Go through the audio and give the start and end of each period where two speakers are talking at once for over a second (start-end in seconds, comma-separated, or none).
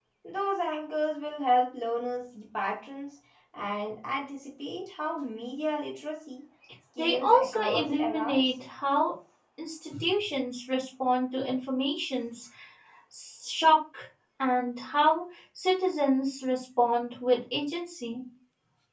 7.0-8.4